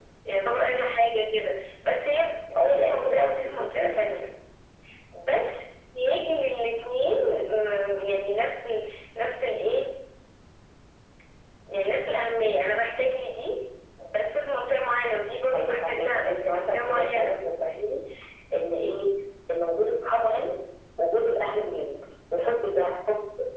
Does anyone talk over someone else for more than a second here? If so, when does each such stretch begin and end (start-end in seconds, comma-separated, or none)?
2.5-4.0, 15.5-17.4